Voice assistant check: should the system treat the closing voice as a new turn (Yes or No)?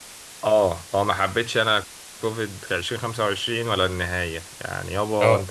No